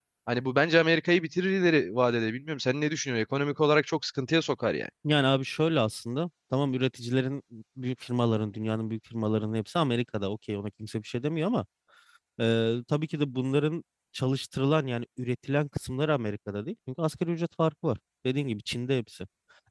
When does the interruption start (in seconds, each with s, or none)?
none